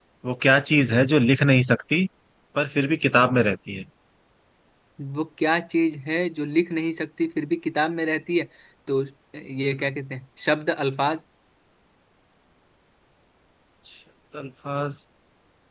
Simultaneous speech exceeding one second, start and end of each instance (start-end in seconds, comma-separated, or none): none